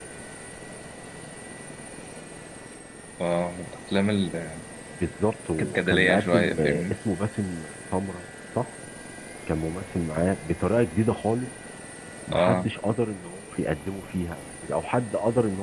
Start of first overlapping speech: 6 s

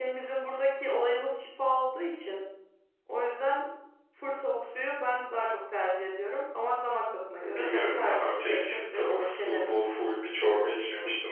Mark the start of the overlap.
7 s

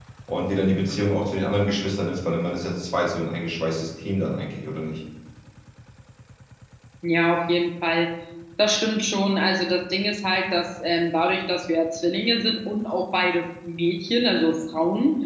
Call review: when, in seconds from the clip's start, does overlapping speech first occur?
none

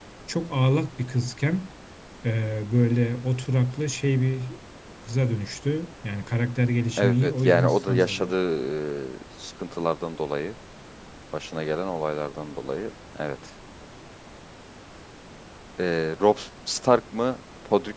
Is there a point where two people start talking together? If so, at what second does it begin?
7 s

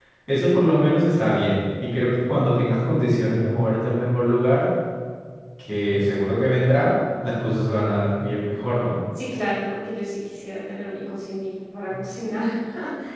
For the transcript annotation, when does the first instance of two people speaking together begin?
none

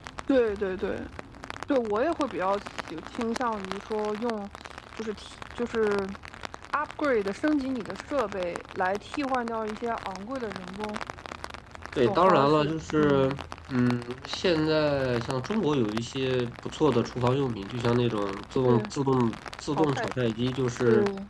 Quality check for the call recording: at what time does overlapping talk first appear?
12 s

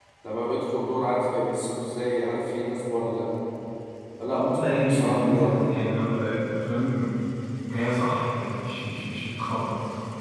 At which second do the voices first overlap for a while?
4 s

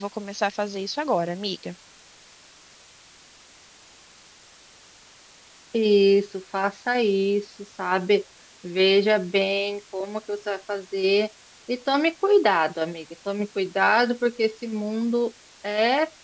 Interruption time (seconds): none

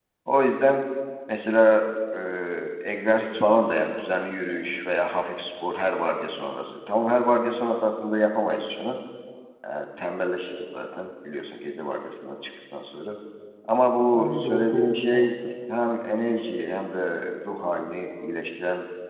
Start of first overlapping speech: 14 s

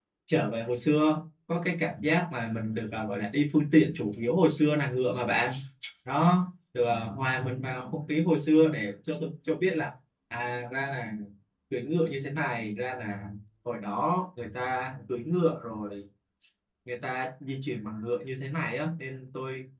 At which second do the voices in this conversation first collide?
none

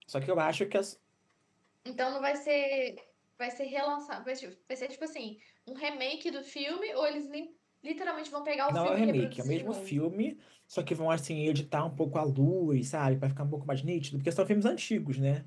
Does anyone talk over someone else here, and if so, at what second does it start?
9 s

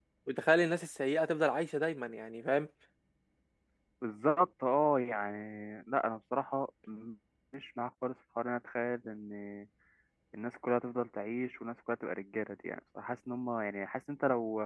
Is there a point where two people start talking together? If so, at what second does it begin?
none

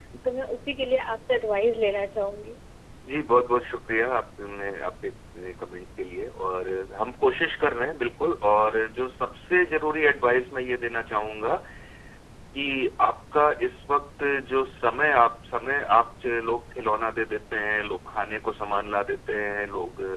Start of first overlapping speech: none

